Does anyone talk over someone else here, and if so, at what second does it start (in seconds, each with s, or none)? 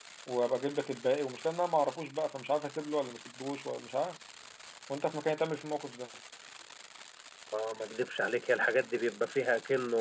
none